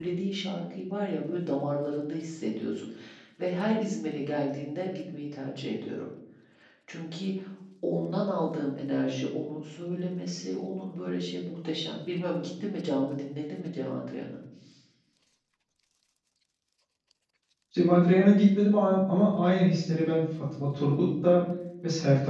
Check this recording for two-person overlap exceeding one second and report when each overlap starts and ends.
none

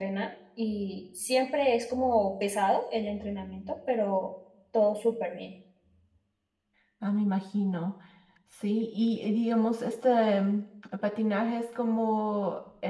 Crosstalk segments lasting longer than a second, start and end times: none

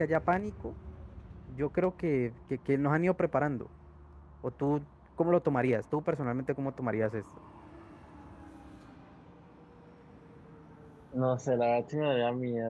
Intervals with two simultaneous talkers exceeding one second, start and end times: none

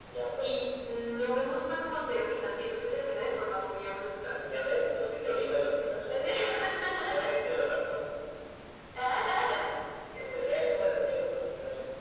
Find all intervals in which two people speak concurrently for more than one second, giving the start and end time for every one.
none

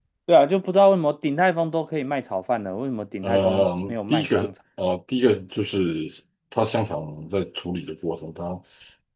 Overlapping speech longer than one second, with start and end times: 3.2-4.5

